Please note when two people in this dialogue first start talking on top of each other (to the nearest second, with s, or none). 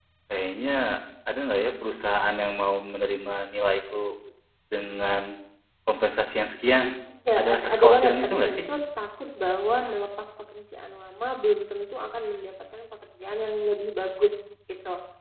7 s